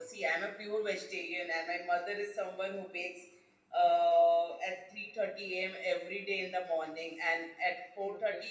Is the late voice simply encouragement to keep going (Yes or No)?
Yes